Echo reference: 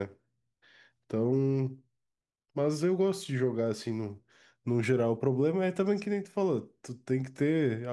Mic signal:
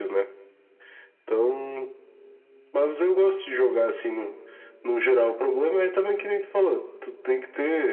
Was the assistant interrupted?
No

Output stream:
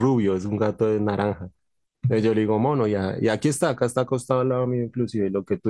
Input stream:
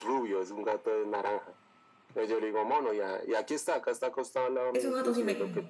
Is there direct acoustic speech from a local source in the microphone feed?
Yes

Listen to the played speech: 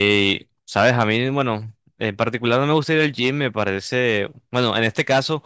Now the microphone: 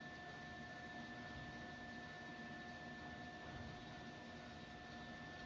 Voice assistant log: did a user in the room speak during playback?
No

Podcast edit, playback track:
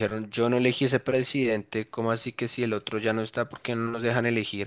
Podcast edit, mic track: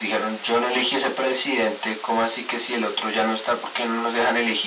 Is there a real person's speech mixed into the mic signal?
No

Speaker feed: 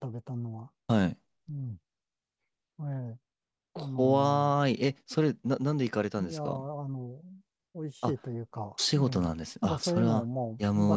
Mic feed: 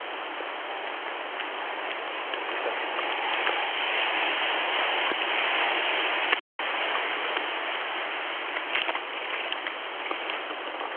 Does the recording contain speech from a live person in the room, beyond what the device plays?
No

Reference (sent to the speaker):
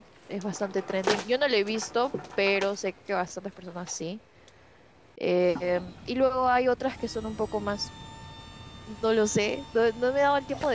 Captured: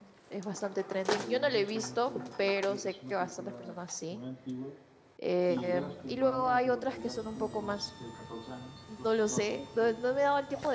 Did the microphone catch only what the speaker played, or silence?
No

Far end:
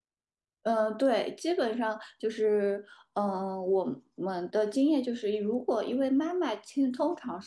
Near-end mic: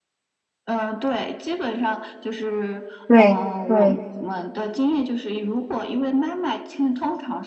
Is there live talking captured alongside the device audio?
Yes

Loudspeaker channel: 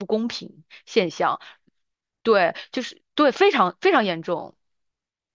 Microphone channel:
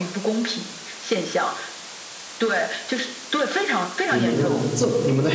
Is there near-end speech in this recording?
Yes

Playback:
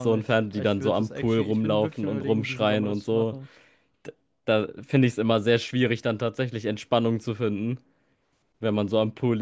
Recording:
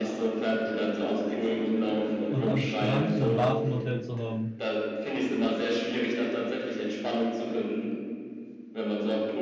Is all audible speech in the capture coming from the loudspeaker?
No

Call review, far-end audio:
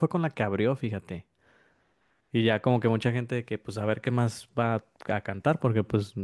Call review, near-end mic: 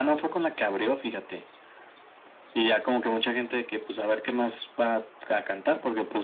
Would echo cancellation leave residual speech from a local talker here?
No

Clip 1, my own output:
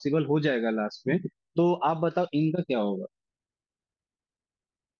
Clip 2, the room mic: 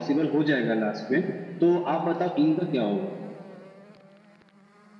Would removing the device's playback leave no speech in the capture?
Yes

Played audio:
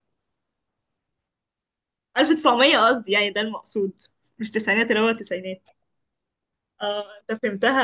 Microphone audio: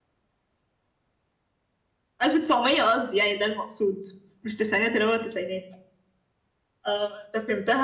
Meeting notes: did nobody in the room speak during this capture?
Yes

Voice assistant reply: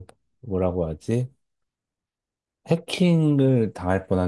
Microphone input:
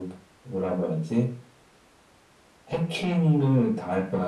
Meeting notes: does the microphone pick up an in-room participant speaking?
No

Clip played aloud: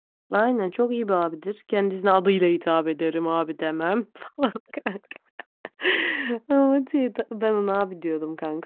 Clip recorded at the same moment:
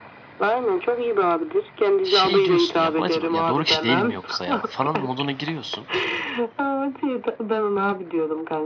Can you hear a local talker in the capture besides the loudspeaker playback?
Yes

